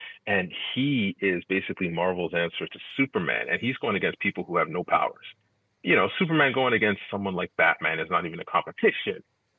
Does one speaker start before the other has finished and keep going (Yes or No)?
No